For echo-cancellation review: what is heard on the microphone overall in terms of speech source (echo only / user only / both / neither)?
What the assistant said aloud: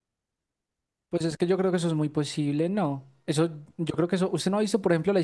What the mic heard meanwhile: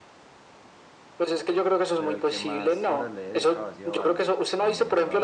both